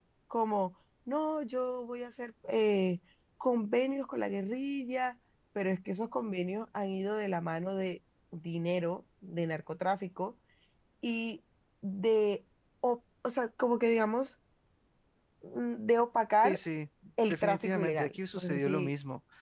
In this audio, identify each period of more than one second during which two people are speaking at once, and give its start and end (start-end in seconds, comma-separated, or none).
17.3-18.9